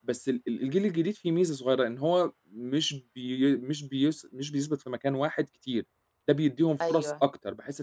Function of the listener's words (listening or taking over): listening